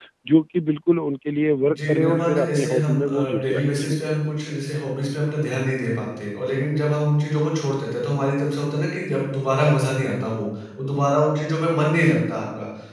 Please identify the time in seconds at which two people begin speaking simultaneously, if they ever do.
1.9 s

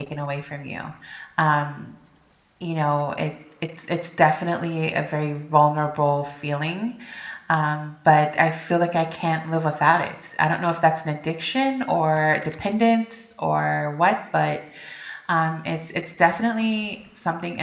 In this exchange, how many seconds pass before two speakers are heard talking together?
none

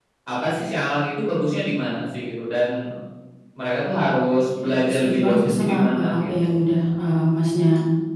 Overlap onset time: 4.6 s

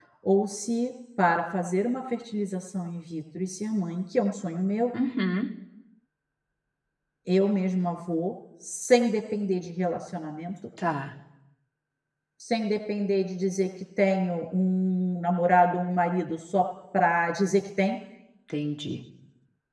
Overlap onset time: none

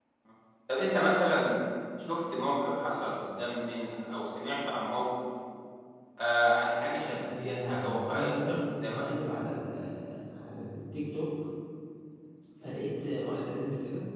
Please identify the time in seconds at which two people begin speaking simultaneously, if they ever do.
7.1 s

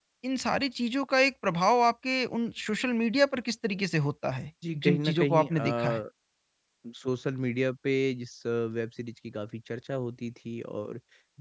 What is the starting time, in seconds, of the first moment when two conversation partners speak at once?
4.6 s

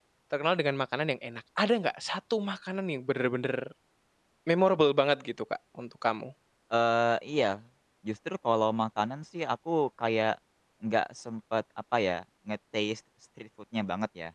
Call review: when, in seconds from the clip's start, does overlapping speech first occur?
none

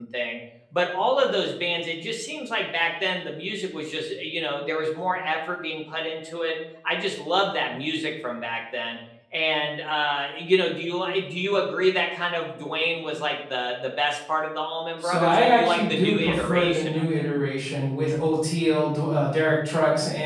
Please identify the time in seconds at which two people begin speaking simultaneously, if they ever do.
15.0 s

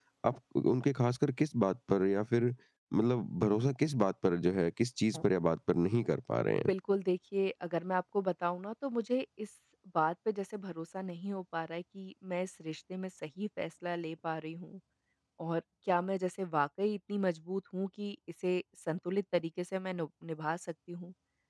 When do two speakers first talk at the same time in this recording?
none

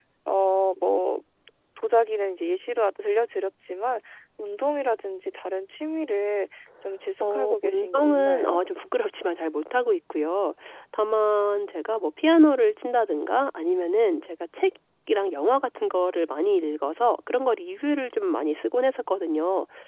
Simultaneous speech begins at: 7.2 s

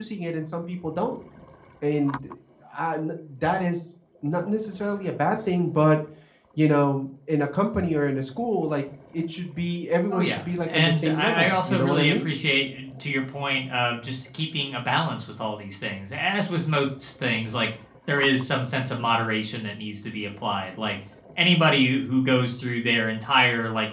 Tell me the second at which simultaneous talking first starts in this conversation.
10.1 s

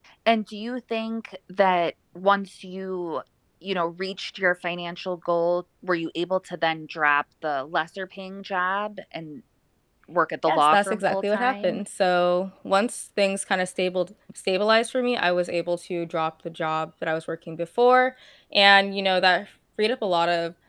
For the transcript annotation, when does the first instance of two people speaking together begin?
10.4 s

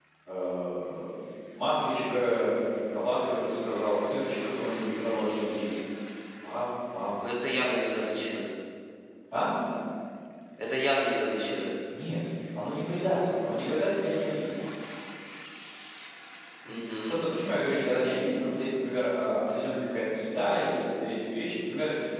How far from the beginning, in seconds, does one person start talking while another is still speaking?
none

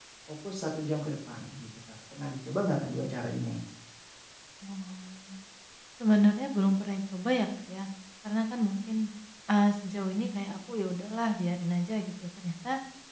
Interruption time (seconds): none

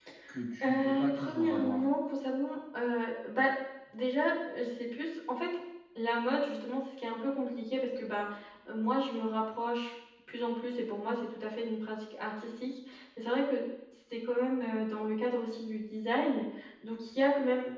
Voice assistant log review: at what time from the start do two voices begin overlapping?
0.6 s

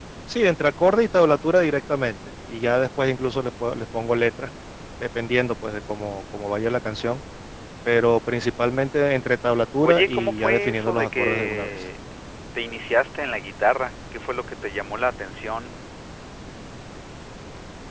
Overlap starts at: 9.8 s

